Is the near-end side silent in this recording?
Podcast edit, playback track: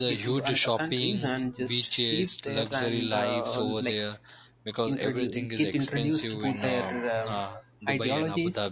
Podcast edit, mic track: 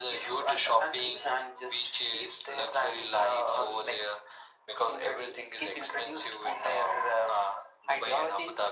Yes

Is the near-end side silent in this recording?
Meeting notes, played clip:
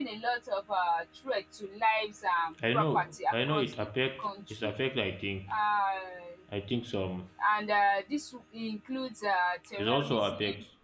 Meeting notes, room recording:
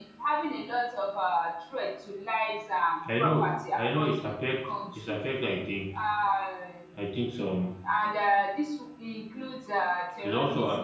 Yes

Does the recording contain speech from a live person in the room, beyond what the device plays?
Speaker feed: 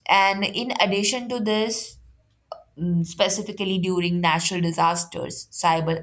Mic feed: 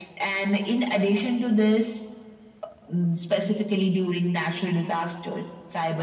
No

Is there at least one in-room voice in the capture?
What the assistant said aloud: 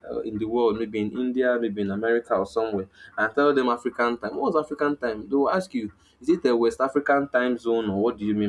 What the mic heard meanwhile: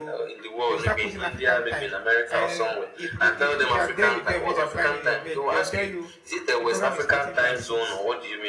Yes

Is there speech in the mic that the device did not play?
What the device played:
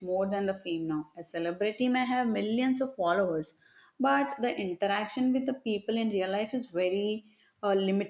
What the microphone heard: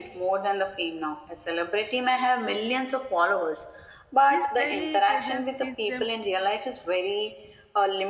Yes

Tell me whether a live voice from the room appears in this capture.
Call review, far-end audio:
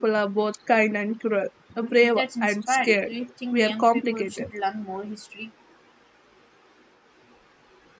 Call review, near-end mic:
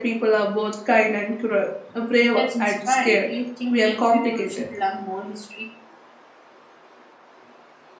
No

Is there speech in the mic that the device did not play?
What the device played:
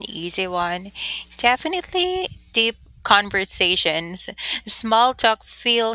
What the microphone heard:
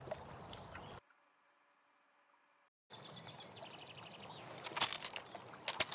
No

